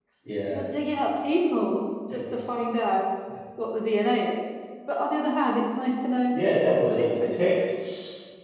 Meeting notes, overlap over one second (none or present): none